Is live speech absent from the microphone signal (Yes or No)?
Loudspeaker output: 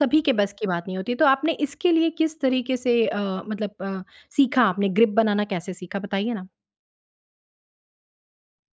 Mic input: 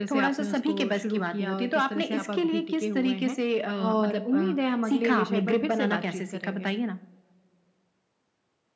No